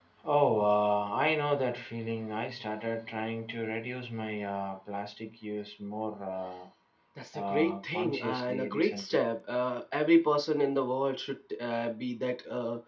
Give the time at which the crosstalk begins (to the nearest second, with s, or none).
7 s